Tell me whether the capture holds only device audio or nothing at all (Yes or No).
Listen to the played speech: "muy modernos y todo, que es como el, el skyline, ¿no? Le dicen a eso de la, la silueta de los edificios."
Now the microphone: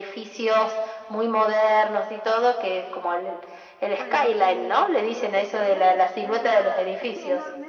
No